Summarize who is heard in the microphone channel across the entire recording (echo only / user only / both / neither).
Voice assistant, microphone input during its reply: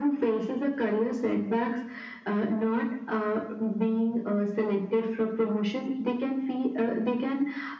echo only